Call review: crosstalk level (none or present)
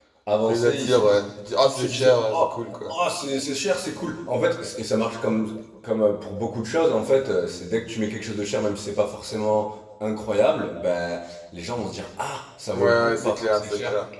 present